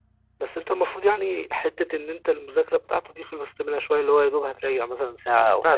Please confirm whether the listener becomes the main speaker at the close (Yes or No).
Yes